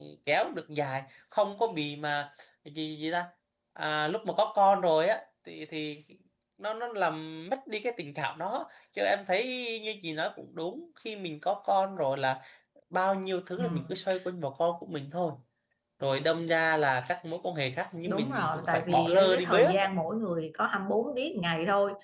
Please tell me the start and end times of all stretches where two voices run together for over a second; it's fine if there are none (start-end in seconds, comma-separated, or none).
18.1-19.9